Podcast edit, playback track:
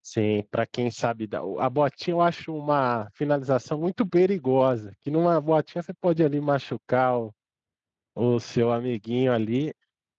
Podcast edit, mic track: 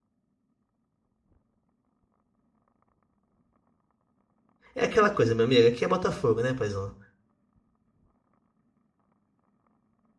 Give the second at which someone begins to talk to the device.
5 s

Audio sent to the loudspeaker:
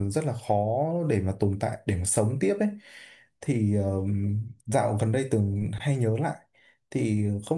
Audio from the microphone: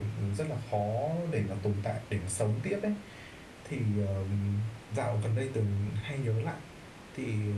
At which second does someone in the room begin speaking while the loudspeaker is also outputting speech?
none

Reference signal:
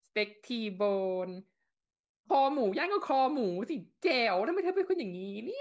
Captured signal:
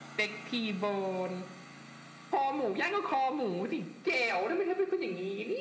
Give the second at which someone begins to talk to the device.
none

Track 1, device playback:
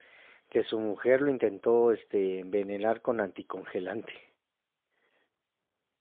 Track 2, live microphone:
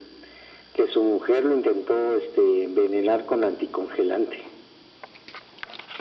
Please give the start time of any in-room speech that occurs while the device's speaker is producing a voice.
none

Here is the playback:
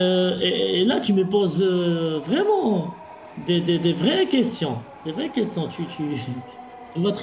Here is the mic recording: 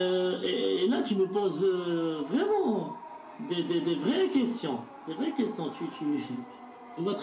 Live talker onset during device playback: none

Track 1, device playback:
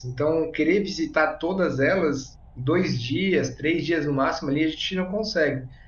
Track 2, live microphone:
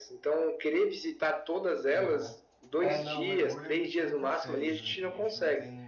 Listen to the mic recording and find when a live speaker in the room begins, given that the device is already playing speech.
2 s

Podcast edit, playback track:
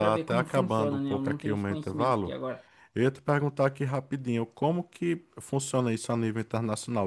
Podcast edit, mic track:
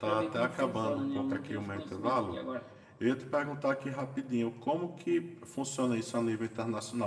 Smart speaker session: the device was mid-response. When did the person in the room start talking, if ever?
none

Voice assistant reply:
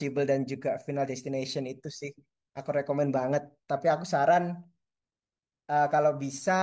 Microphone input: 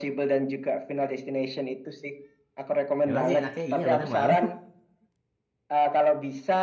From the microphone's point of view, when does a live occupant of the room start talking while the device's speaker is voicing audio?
3 s

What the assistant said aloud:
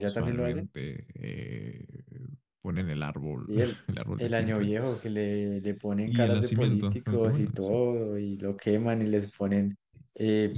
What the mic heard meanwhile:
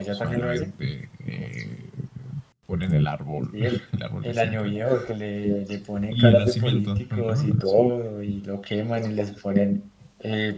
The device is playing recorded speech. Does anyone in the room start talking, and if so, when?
none

